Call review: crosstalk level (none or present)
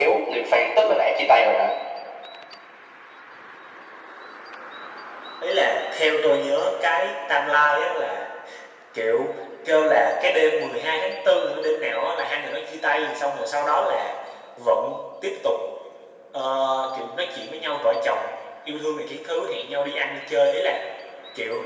none